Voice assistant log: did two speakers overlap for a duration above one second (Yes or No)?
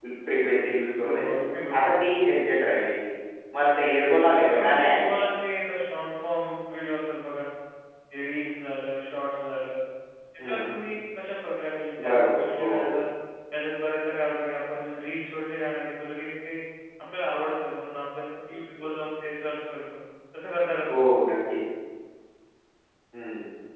Yes